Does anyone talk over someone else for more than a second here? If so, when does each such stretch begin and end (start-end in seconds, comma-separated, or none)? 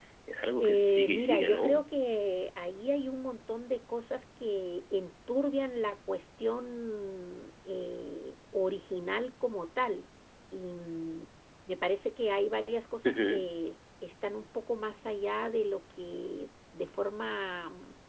0.6-1.8